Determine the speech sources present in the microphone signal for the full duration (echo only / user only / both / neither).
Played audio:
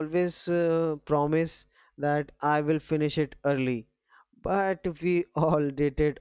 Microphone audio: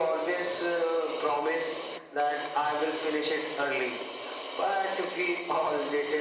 echo only